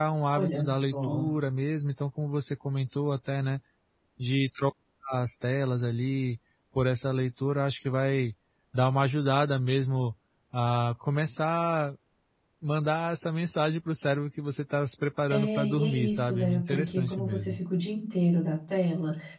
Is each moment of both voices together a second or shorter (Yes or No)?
No